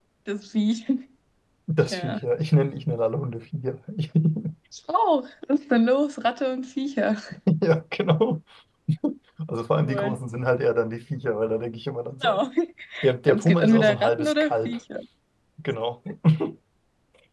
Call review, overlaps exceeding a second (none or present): present